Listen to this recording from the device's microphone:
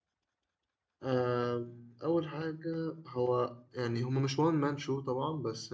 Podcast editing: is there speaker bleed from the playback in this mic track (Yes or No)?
No